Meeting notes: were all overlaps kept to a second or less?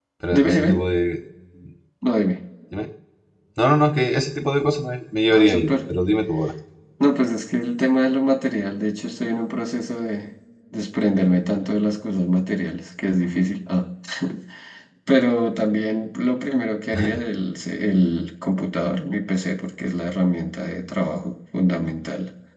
Yes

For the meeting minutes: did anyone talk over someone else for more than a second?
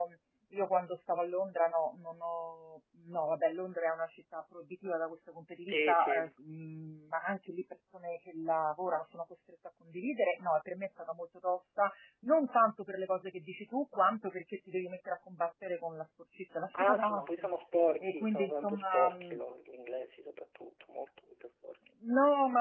Yes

